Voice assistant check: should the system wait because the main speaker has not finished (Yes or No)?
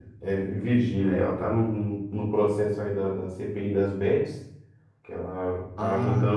Yes